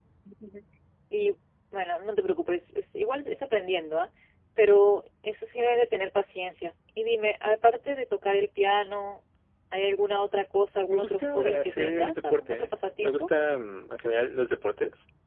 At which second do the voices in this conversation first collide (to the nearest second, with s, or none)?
11 s